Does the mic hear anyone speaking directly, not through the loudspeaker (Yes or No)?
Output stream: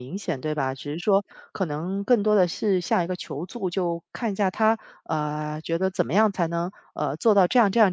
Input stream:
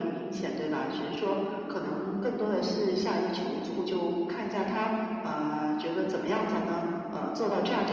No